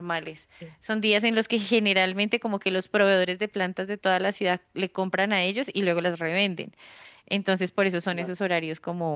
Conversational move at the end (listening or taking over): listening